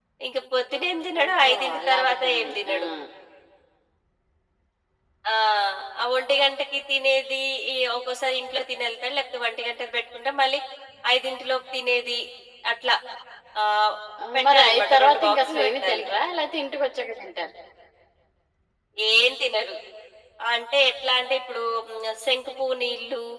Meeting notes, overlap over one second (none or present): present